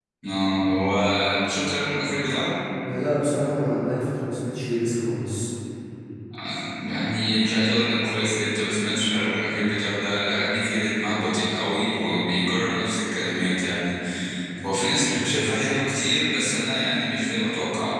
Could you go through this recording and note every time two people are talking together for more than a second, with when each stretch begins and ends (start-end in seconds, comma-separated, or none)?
none